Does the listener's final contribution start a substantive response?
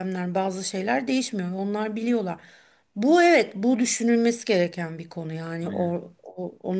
No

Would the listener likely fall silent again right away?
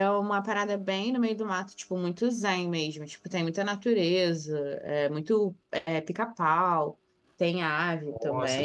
Yes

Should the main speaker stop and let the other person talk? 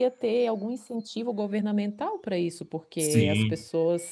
No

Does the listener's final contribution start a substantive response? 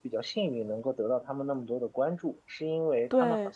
No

